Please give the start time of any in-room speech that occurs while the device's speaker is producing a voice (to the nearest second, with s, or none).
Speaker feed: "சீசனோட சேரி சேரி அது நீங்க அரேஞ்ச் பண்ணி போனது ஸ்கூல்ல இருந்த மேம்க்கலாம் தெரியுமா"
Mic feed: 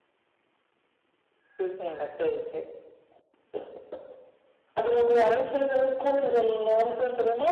none